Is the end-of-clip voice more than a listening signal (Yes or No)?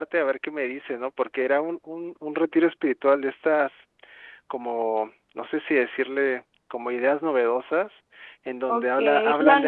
Yes